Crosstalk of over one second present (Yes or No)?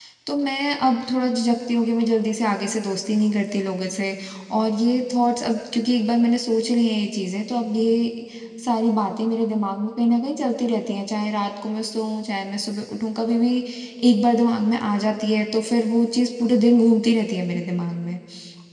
No